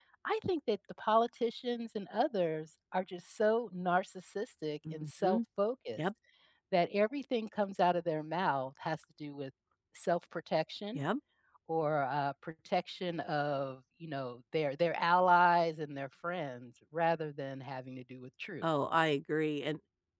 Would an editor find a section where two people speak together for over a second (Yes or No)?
No